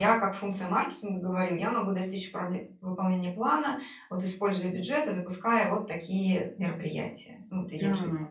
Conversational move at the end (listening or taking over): taking over